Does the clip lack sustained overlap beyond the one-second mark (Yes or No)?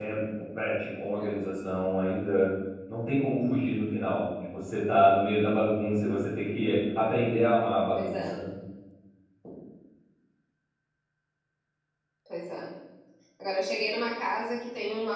Yes